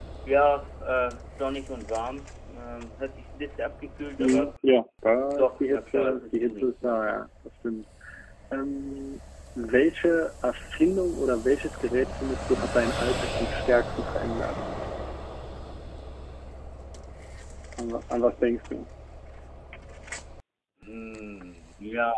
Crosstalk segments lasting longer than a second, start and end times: 5.4-7.2

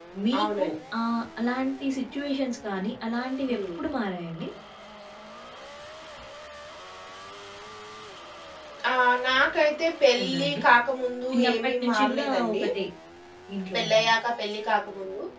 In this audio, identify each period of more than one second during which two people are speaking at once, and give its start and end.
11.3-12.6

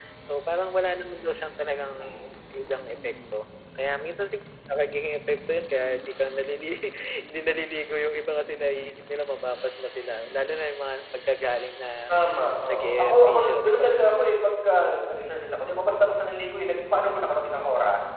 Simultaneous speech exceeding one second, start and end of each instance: 12.7-13.9

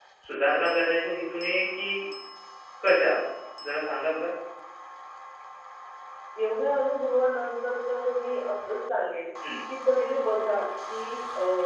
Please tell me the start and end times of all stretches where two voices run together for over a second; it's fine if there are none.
none

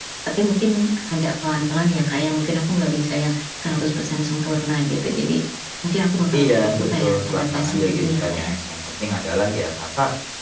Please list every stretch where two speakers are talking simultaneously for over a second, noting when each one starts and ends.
6.3-8.5

